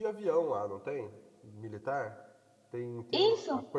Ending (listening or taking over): taking over